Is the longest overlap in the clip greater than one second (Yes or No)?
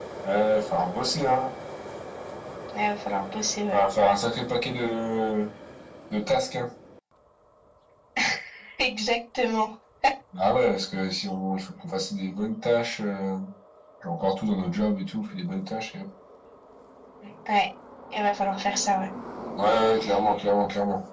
No